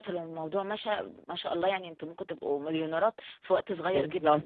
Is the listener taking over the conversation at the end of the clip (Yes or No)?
Yes